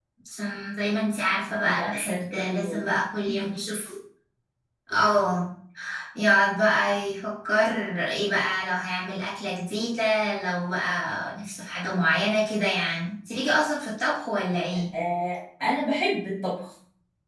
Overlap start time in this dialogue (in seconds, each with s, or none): 1.6 s